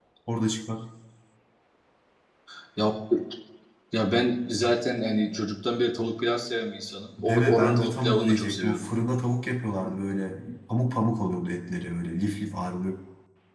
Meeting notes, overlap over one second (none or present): present